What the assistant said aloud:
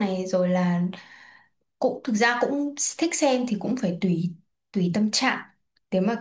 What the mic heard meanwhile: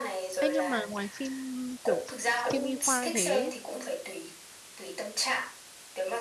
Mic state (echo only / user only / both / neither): both